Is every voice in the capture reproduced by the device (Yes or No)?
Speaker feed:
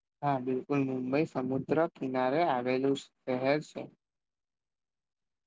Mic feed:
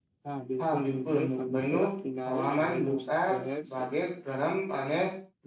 No